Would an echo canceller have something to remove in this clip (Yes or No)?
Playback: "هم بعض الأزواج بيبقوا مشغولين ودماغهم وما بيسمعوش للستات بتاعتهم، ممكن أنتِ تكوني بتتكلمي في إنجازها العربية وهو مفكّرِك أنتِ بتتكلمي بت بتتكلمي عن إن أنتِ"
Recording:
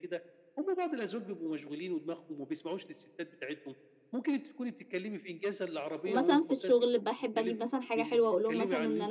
Yes